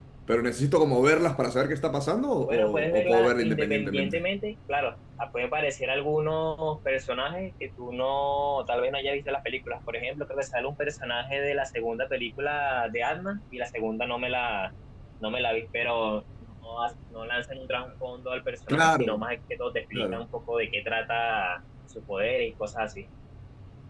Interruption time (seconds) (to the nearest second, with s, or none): 2 s